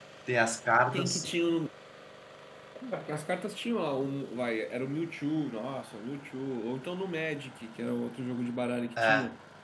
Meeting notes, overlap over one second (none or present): none